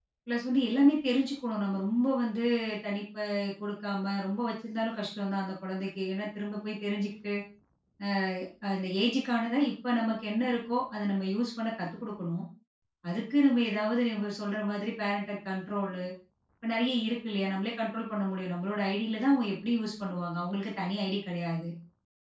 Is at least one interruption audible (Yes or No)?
No